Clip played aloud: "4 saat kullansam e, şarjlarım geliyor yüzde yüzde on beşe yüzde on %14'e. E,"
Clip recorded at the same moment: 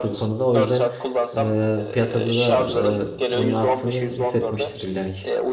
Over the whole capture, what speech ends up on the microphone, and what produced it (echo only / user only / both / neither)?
both